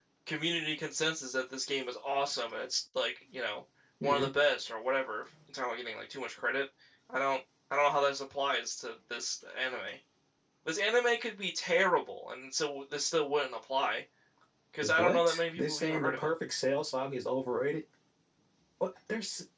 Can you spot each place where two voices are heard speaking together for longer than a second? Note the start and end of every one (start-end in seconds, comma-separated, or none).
14.8-16.3